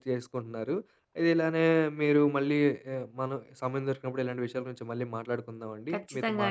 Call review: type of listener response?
listening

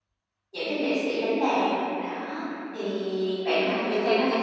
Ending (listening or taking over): taking over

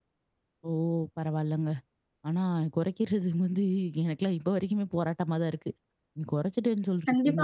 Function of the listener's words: taking over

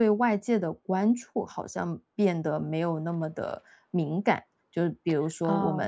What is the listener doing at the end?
listening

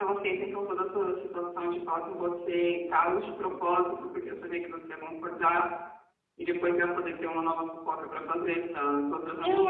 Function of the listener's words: taking over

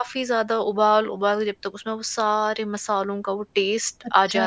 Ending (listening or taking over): taking over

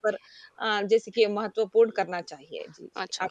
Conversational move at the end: taking over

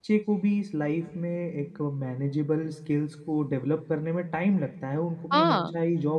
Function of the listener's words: listening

